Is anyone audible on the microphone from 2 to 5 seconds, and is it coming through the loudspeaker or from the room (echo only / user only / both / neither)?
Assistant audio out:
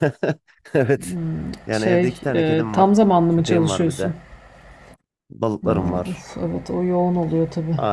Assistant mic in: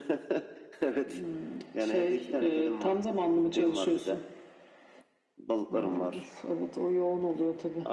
echo only